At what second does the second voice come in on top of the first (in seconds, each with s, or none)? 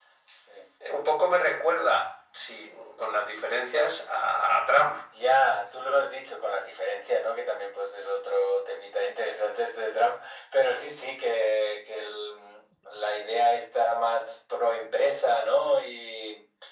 none